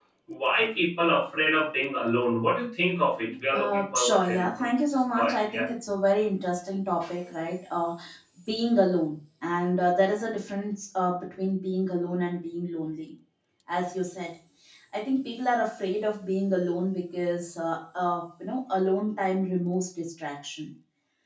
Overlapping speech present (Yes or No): Yes